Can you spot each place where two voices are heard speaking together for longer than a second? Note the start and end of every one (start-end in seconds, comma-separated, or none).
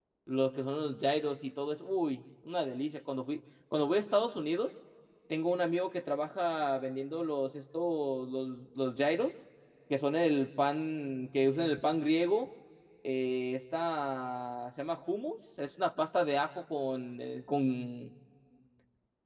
none